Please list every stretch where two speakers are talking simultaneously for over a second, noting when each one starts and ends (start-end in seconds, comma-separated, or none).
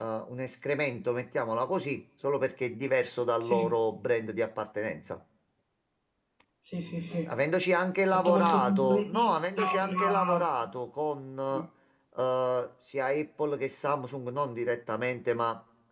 8.1-10.5